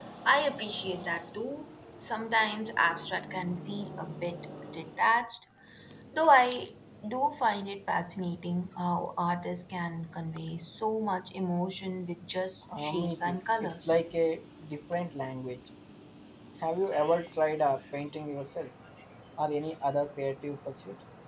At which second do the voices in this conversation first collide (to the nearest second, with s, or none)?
13 s